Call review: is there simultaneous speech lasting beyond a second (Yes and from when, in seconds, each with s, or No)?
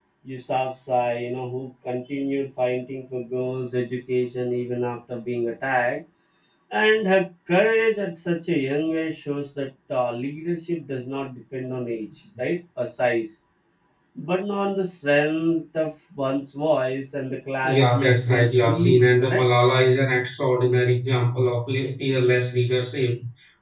Yes, from 17.6 s